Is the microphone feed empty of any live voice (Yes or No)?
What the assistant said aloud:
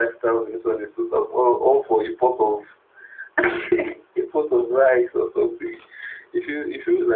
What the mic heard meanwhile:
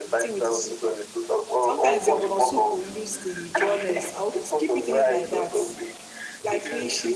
No